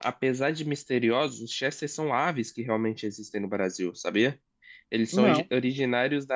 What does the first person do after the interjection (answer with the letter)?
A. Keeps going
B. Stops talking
A